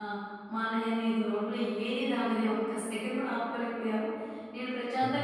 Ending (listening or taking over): listening